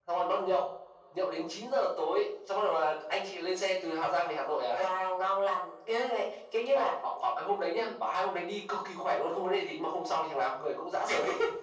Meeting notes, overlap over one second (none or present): none